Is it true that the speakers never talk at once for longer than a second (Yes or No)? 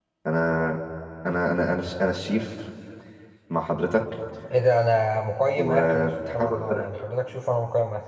No